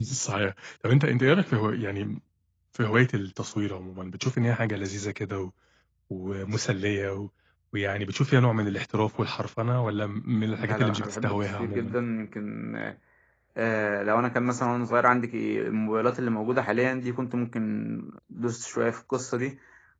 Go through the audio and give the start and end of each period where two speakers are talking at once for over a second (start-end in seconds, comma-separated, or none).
10.6-12.0